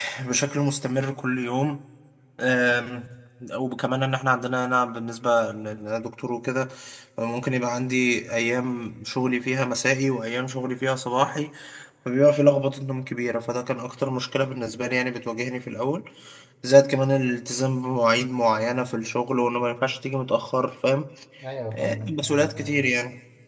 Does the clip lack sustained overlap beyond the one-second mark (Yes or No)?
No